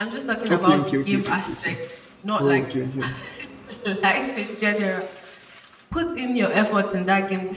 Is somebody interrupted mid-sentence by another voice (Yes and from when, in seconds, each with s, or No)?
Yes, from 0.5 s